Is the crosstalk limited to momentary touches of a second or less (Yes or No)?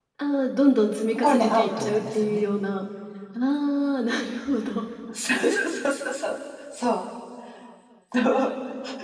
No